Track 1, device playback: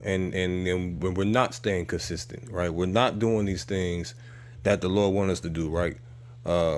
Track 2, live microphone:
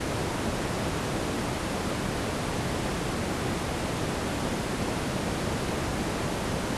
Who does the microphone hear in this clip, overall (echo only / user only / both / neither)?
neither